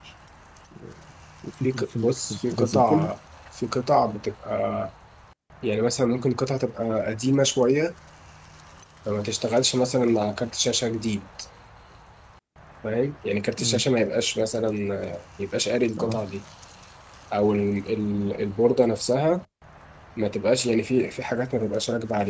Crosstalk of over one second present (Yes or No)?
Yes